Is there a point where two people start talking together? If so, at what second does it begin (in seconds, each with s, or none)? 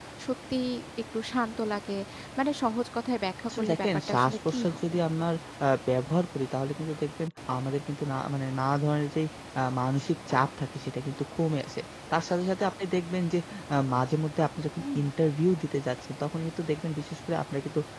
3.5 s